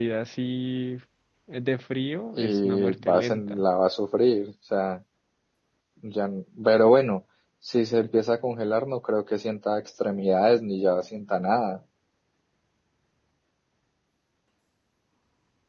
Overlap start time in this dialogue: 2.4 s

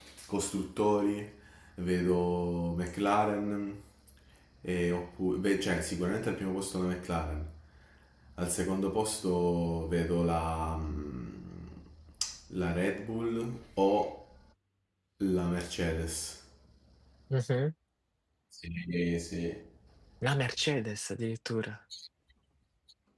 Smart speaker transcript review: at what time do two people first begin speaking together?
none

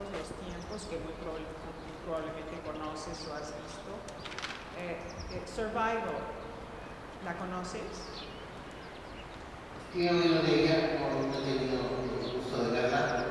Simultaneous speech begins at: none

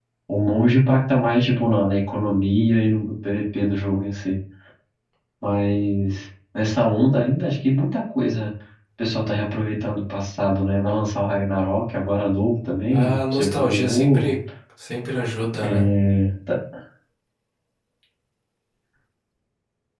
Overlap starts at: 12.9 s

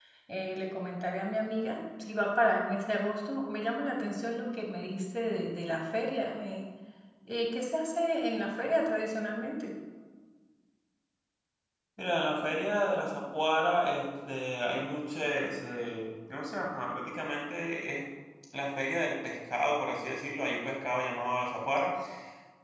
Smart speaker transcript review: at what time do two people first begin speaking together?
none

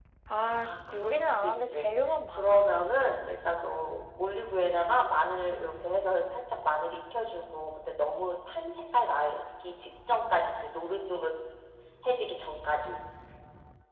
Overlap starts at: 0.6 s

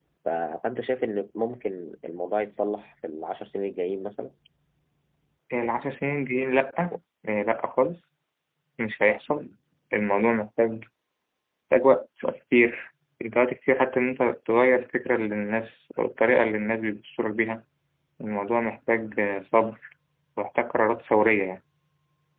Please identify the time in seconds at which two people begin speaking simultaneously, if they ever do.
none

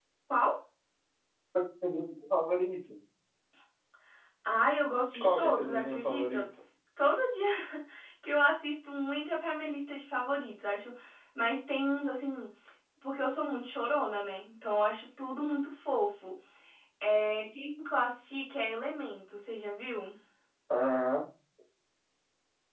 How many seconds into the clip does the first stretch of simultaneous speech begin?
5.2 s

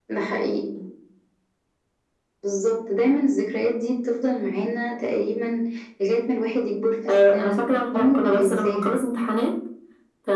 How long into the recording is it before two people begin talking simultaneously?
7.0 s

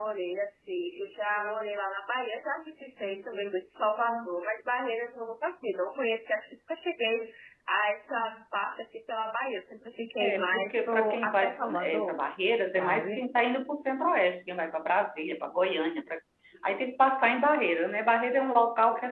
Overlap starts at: 10.2 s

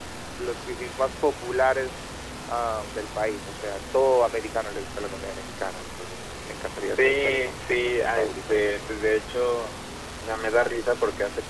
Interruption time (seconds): 7.0 s

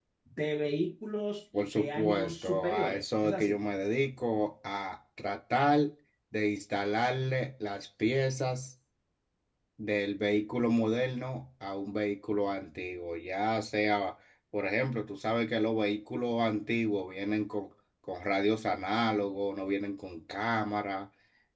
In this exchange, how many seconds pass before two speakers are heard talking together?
1.5 s

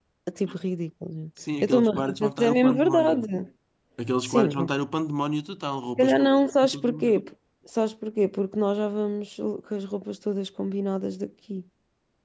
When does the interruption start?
1.6 s

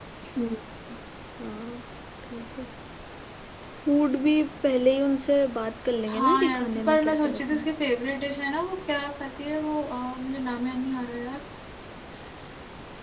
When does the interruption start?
6.1 s

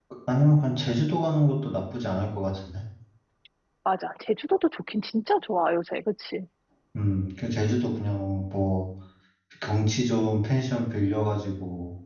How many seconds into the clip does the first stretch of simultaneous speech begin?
none

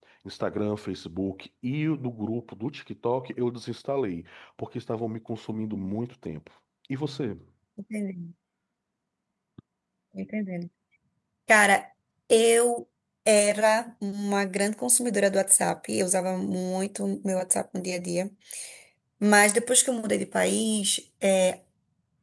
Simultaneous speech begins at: none

